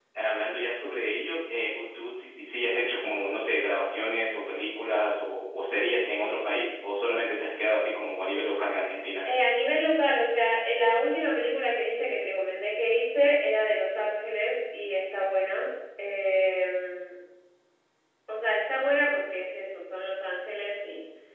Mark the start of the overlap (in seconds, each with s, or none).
none